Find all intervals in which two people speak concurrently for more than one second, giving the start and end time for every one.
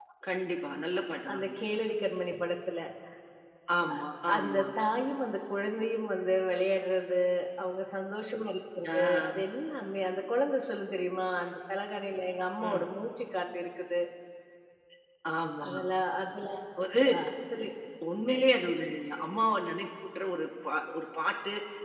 none

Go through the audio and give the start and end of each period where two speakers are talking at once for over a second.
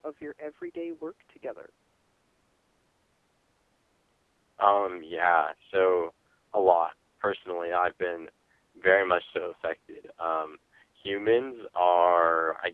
none

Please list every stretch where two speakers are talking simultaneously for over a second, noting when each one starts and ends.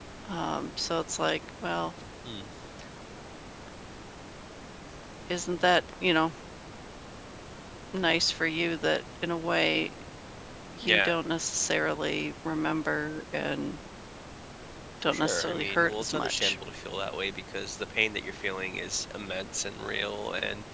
15.1-16.6

